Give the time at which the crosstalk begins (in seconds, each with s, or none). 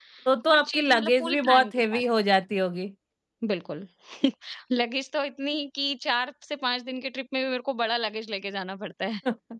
0.5 s